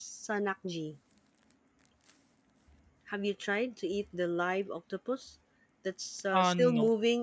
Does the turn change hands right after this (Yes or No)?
No